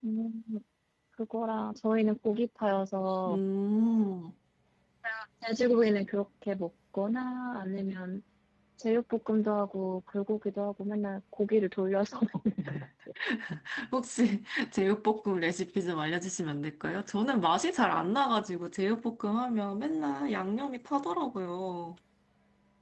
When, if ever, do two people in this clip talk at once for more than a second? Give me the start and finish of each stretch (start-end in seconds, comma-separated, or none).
none